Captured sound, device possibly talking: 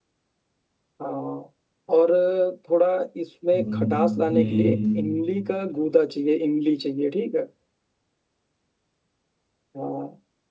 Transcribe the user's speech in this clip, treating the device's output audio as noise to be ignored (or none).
हम्म हम्म,